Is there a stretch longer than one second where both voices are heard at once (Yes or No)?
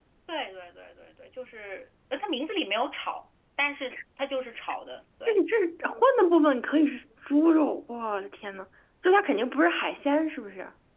No